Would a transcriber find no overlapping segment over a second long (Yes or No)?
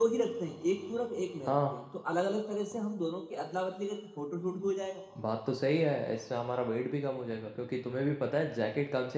Yes